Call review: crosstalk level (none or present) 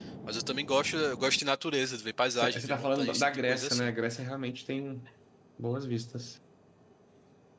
present